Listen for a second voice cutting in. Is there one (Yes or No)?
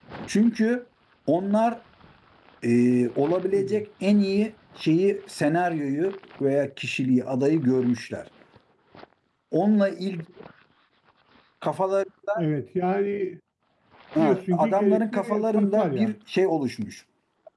Yes